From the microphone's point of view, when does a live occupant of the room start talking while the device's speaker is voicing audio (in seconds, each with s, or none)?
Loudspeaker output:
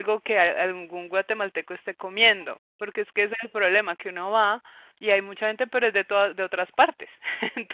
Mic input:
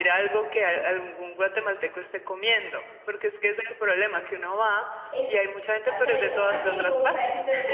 5.1 s